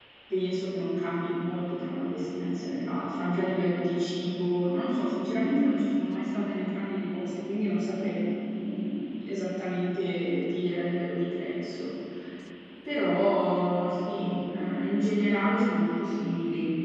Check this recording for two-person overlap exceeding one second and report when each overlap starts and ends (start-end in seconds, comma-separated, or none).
none